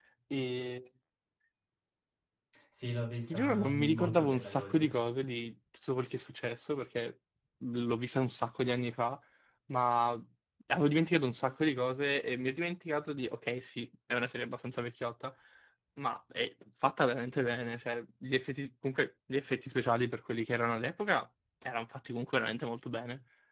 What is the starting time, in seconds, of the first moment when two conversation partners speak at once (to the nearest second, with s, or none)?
3 s